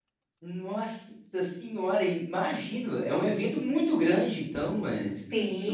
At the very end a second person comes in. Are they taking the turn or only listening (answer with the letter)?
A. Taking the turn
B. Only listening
A